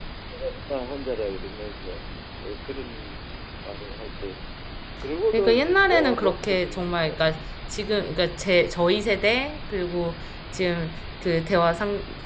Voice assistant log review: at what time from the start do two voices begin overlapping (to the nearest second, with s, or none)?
5 s